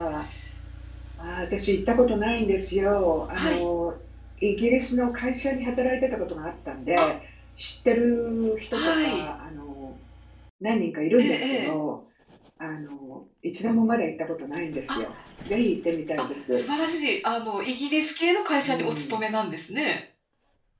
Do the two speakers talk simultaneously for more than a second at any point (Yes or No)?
No